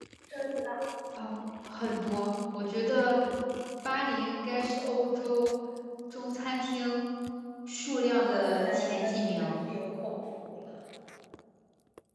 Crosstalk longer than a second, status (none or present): present